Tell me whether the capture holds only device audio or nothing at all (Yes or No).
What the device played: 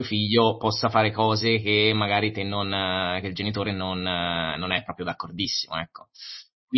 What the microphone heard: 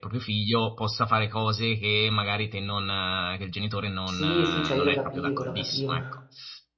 No